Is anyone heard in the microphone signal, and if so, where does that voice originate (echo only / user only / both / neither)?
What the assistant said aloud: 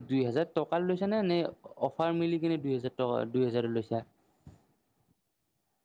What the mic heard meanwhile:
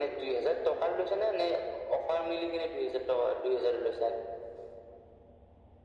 echo only